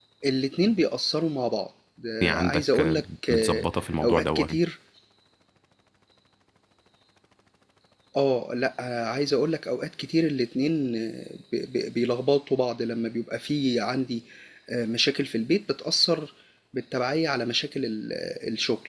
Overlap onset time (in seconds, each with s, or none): 2.2 s